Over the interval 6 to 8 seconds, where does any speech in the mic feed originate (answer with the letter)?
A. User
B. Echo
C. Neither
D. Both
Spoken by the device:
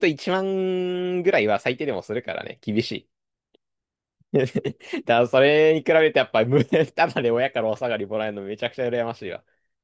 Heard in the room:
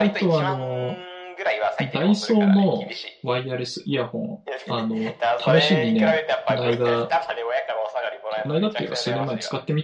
D